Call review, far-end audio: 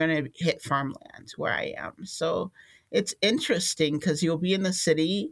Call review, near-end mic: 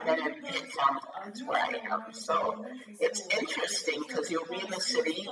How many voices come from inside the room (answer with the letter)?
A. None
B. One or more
B